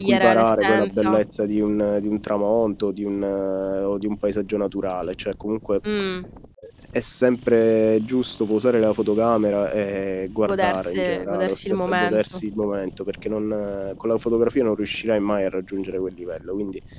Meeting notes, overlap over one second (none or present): present